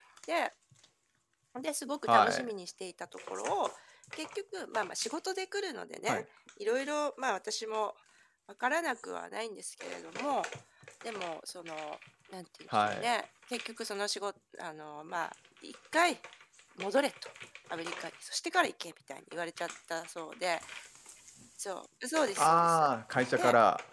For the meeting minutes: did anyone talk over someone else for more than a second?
No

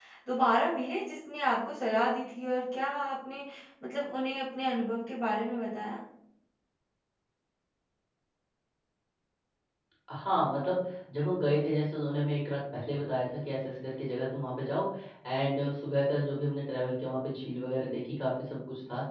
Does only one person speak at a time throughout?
Yes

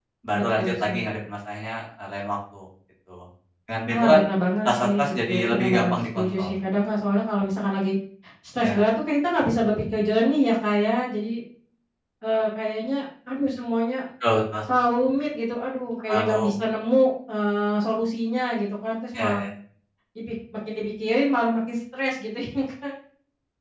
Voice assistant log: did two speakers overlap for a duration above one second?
Yes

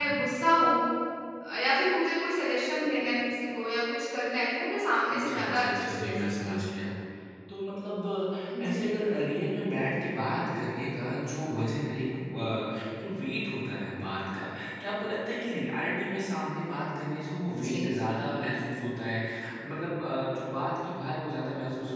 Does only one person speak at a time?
No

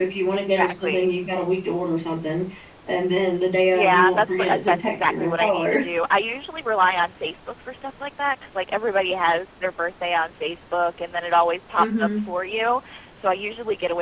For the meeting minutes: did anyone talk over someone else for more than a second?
Yes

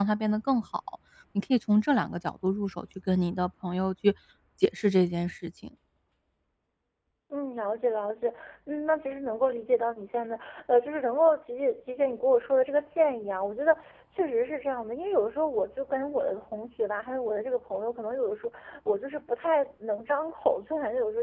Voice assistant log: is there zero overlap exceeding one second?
Yes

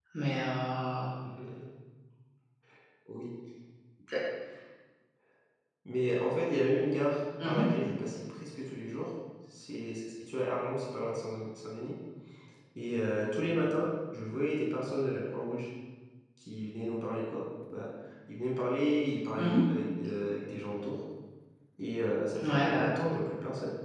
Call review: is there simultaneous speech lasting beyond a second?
No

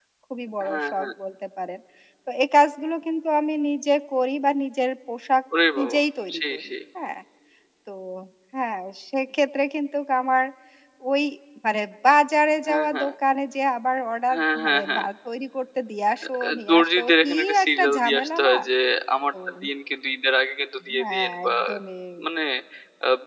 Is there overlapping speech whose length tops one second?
Yes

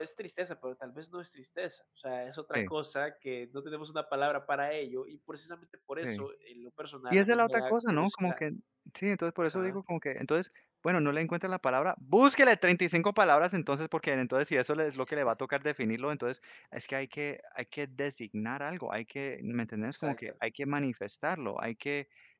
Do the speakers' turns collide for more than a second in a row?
Yes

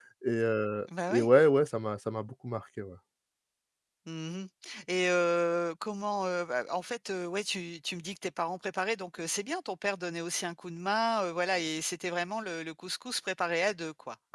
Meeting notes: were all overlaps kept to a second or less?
Yes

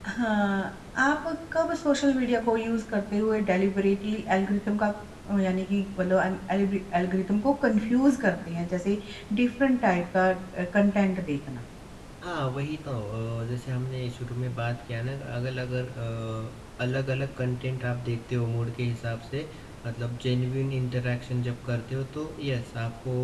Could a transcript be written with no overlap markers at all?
Yes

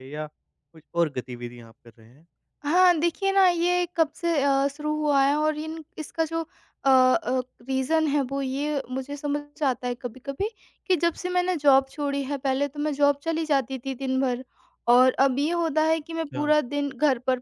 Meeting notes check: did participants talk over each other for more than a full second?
No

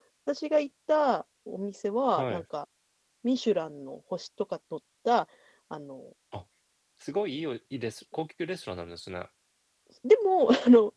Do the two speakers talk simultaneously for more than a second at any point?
No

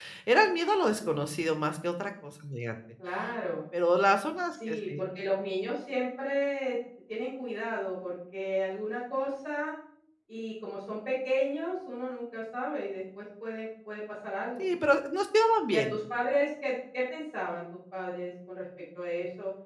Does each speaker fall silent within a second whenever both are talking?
Yes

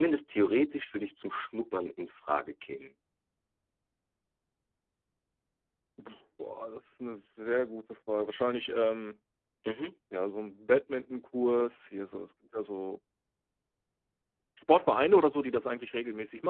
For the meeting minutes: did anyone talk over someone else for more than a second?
No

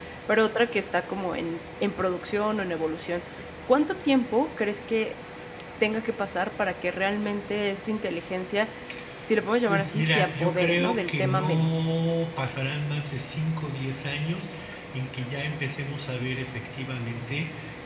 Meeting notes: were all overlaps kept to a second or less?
No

